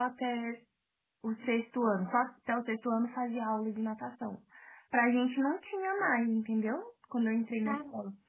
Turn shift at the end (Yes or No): No